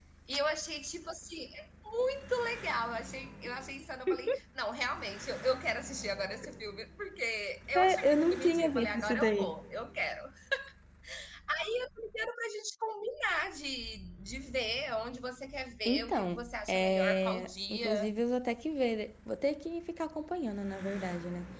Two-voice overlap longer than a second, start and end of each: 7.8-9.6, 15.8-18.1

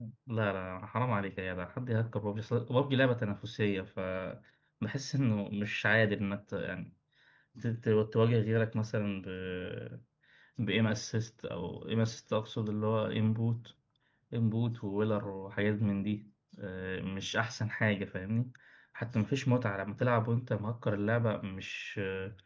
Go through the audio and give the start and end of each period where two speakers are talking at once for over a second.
none

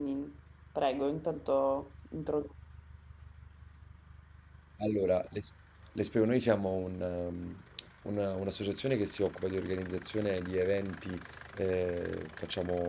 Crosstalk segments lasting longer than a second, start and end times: none

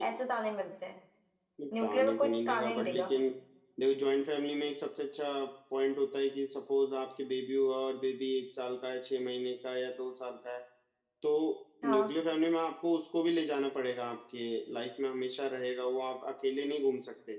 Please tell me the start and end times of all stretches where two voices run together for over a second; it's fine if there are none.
1.8-3.1

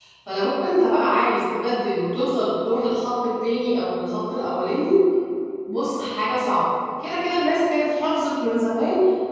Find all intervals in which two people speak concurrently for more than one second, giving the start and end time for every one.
none

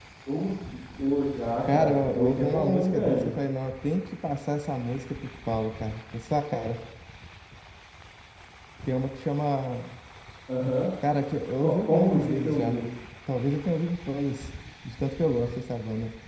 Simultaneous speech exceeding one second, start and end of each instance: 1.7-3.3, 11.6-12.8

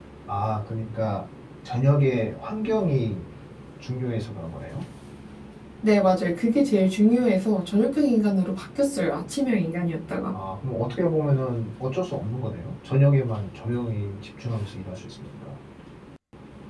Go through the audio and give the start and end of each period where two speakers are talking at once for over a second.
none

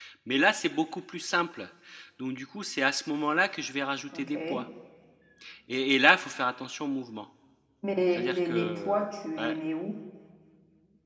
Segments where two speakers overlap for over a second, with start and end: 8.1-9.6

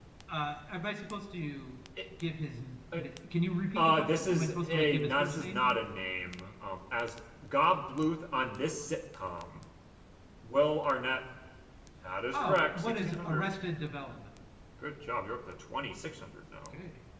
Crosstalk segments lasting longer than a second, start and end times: 3.8-5.8, 12.3-13.6

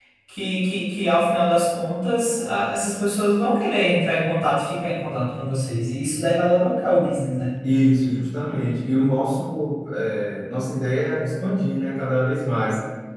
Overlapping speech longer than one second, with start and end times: none

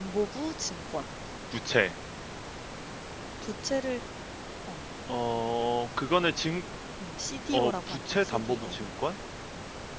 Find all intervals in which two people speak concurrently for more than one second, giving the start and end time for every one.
7.5-8.8

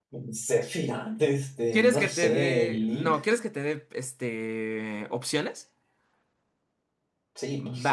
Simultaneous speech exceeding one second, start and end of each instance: 1.7-3.2

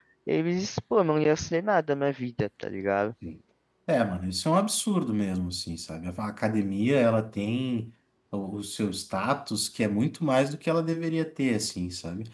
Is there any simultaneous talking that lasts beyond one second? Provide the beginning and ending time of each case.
none

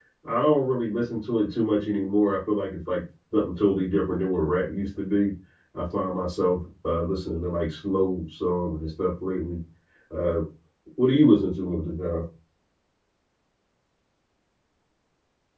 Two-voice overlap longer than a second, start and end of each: none

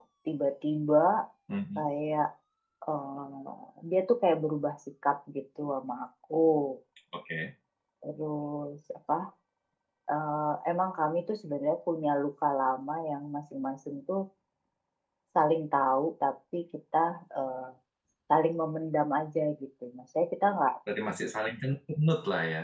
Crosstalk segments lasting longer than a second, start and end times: none

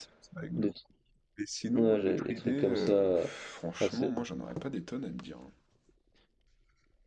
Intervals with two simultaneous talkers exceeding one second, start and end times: 1.7-3.3

